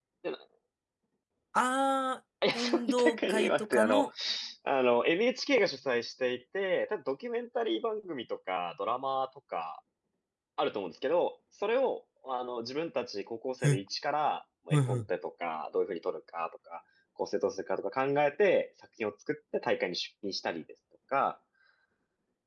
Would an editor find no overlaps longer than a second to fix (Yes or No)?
No